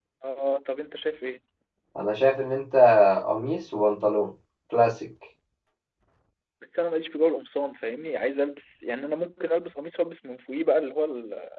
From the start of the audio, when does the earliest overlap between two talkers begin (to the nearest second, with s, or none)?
none